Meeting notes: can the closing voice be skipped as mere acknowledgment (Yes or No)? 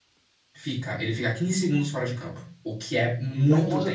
No